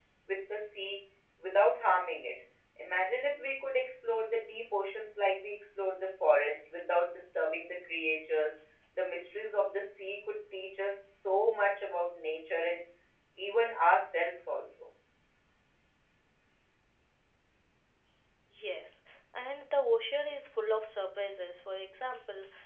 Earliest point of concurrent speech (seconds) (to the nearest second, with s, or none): none